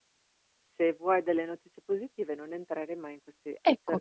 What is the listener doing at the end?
listening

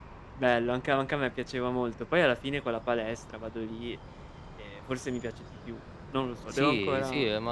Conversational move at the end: taking over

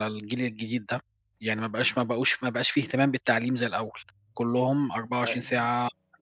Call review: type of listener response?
listening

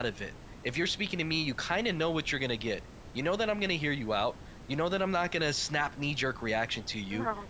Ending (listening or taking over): listening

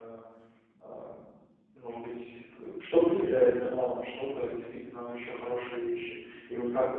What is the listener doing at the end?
listening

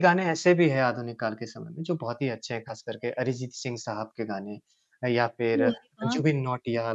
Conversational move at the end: listening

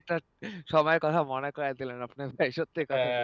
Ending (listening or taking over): taking over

